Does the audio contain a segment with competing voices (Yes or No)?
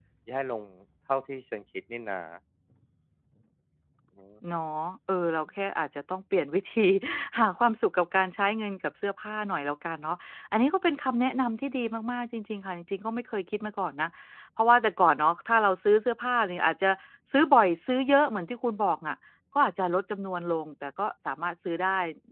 No